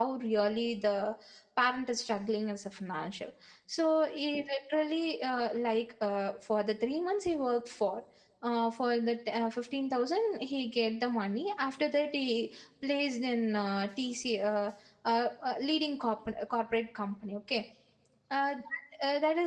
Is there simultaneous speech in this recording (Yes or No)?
No